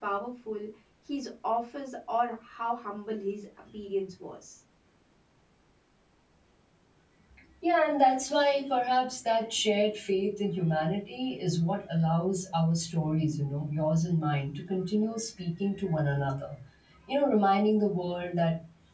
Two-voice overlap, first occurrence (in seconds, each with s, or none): none